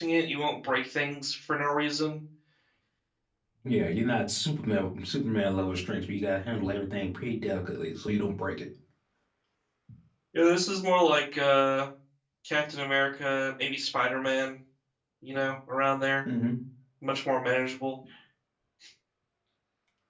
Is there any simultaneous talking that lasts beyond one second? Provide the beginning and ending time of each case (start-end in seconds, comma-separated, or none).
none